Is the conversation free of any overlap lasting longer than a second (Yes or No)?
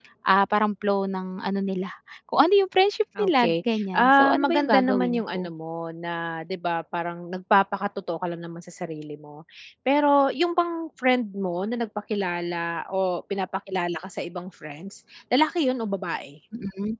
No